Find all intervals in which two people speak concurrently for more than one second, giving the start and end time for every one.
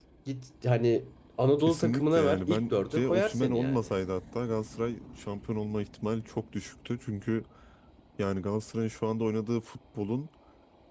1.6-3.9

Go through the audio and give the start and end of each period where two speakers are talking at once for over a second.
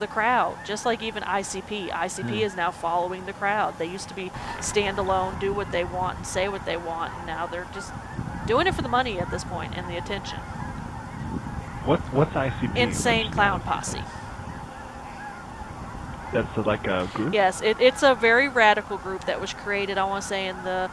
12.8-14.0

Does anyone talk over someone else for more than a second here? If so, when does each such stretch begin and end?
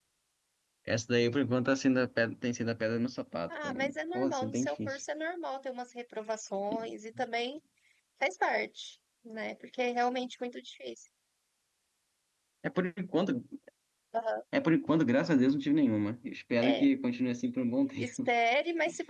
3.6-5.0

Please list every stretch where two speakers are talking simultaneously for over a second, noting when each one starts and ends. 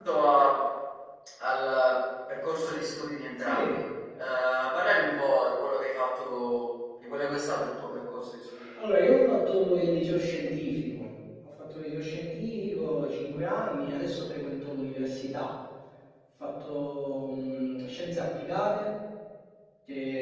none

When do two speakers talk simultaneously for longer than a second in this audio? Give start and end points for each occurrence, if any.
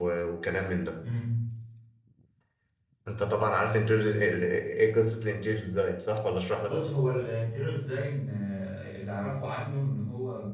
none

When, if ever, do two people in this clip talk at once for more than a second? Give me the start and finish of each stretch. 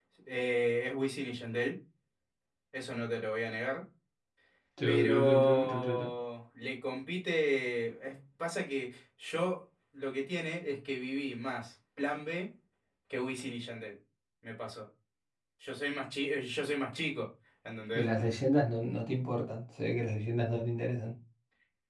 4.8-6.1

